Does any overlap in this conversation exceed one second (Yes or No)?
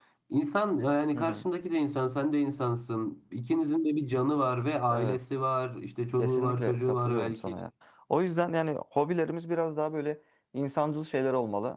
Yes